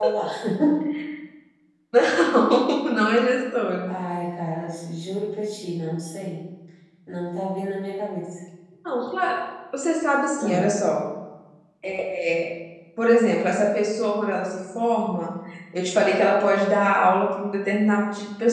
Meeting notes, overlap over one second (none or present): none